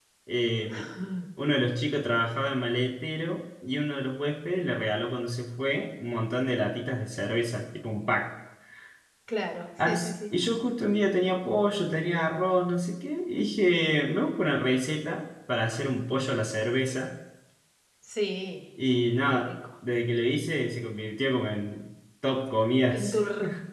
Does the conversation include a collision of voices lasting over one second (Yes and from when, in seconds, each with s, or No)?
No